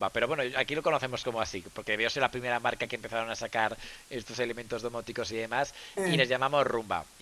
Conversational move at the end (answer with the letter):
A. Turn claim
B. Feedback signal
B